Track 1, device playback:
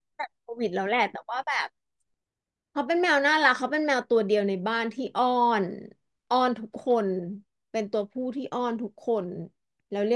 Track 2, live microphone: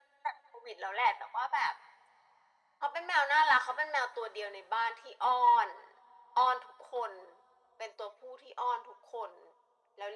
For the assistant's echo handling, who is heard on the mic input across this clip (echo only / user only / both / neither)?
echo only